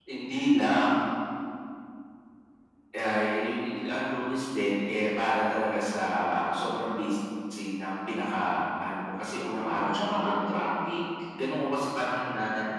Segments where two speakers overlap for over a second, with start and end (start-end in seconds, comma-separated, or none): 9.4-10.7